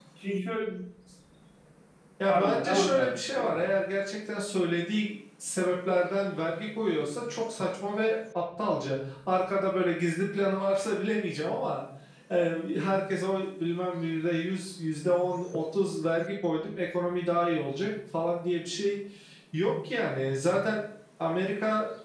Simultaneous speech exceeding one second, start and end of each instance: 2.3-3.6

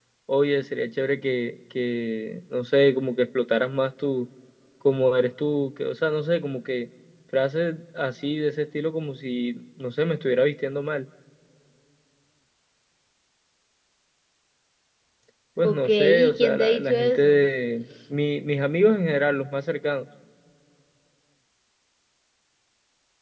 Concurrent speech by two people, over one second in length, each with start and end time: 15.6-17.5

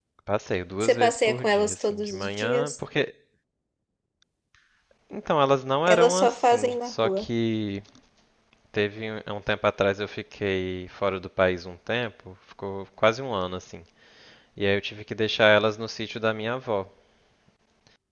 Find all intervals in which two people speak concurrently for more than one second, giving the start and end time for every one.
0.8-2.7, 5.9-7.2

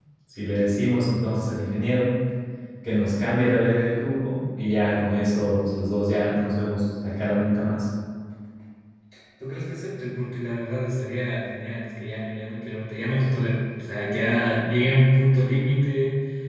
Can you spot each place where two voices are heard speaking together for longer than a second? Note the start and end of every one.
none

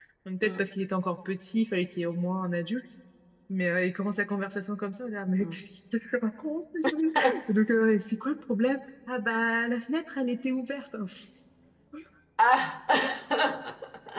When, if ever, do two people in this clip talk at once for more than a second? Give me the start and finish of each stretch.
none

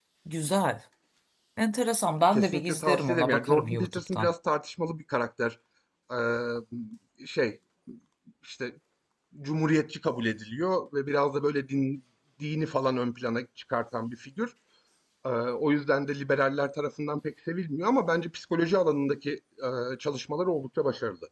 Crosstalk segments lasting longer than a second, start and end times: 2.3-4.3

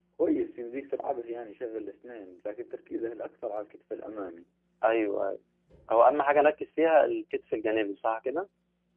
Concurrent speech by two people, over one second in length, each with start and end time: none

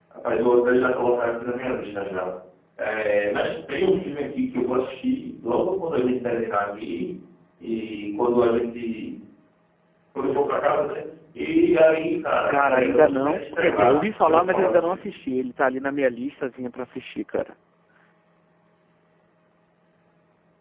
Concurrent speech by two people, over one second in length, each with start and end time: 12.5-15.1

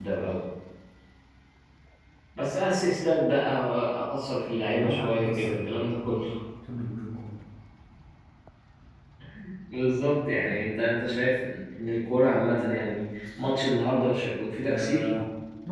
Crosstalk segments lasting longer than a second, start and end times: 4.6-5.9

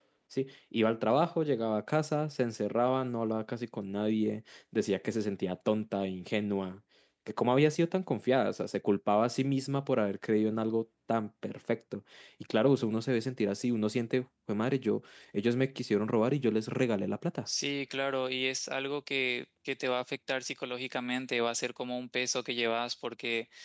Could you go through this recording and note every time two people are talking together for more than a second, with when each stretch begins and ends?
none

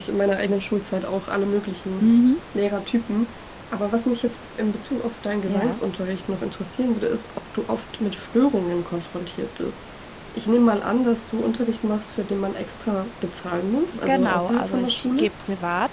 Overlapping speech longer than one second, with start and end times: 14.1-15.3

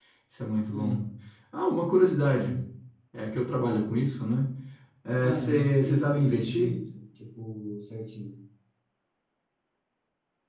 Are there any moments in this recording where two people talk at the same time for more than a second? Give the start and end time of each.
5.3-6.7

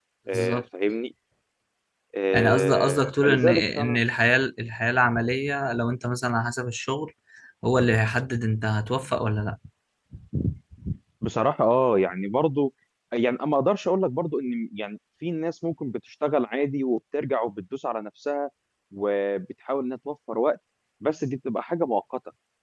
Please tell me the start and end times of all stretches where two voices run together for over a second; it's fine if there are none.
2.3-4.0

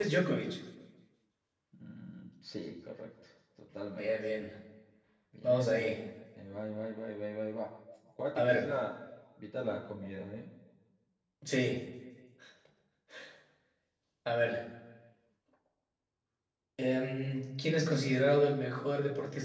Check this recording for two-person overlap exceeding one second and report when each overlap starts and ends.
none

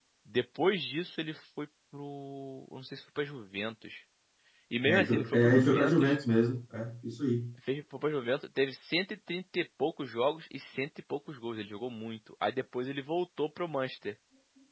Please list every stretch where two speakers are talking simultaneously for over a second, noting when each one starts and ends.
4.8-6.2

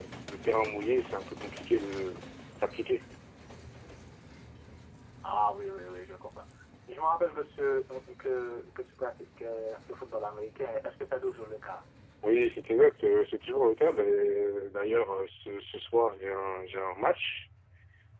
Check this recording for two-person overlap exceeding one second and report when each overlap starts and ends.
none

